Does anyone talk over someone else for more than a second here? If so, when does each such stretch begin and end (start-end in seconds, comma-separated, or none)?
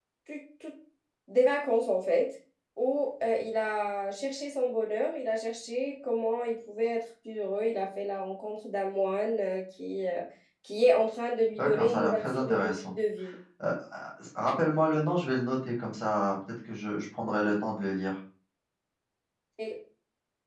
11.6-12.9